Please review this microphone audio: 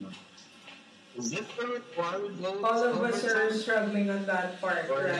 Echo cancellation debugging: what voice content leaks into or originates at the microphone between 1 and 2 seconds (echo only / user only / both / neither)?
echo only